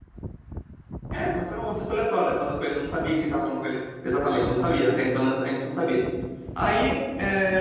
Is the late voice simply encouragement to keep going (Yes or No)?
Yes